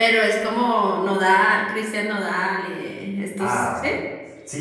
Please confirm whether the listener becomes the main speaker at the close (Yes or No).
Yes